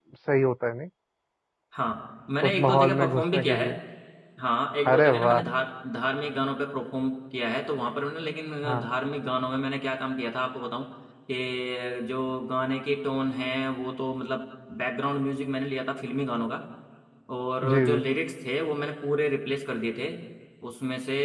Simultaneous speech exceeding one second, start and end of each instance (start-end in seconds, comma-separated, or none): 2.5-3.7